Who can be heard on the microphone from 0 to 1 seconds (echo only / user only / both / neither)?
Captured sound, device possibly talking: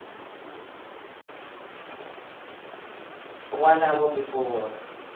neither